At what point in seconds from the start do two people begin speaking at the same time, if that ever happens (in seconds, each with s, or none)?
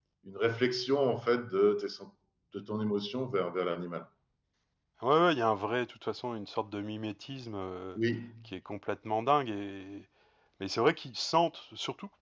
none